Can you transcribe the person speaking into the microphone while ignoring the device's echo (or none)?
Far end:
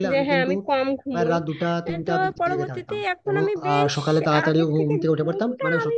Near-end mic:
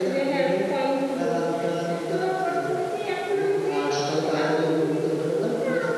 none